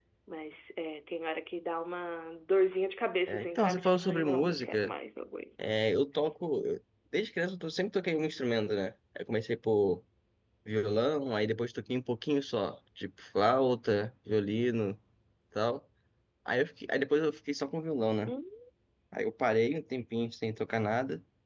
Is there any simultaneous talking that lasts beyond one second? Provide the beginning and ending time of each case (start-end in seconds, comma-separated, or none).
3.3-4.9